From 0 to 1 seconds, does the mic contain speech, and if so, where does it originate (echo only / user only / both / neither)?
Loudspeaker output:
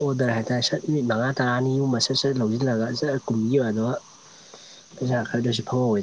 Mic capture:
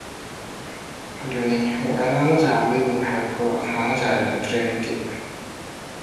neither